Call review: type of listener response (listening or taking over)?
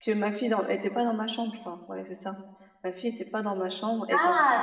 taking over